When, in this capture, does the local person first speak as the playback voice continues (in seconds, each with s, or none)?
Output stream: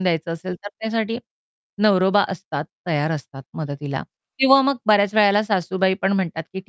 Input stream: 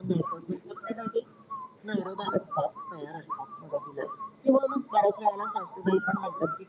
none